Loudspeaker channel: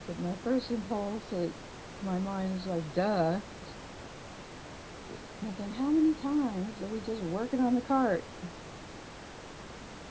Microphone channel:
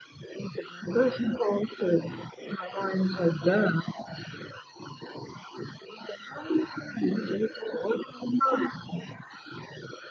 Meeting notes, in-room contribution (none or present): none